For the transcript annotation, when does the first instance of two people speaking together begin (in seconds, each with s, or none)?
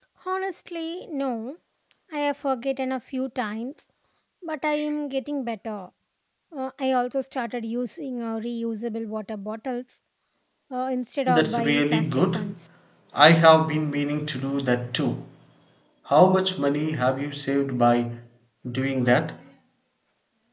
11.3 s